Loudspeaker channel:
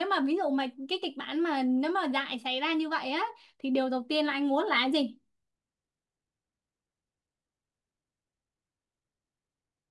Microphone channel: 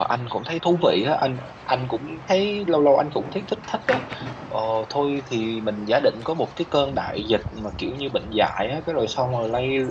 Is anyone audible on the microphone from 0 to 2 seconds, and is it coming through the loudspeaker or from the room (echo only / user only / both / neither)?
user only